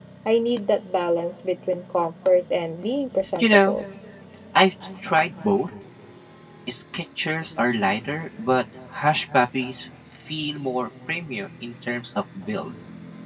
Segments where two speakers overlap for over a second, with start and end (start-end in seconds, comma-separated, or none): none